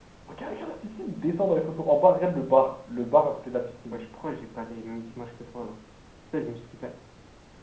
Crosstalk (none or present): none